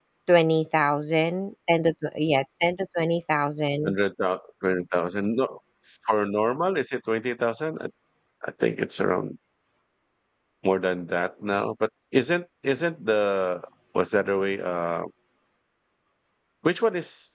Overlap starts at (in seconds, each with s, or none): none